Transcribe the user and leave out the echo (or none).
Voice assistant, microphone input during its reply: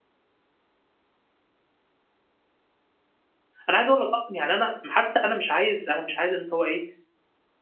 أنا عايز أقول لك أصلًا يعني أنا م حتّى أنا مش عايز أنا مش عايز إن هو إيه،